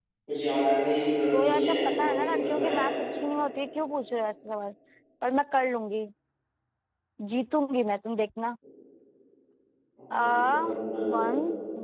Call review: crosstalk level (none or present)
present